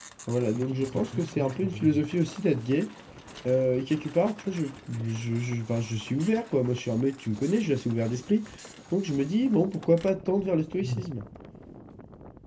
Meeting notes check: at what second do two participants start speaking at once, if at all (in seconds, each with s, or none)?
0.5 s